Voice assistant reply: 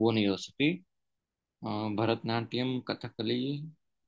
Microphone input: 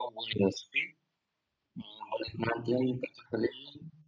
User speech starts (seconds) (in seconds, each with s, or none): none